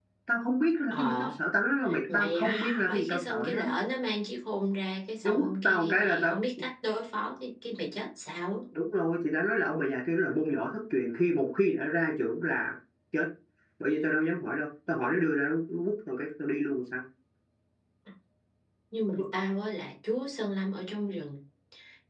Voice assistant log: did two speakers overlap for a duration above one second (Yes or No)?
Yes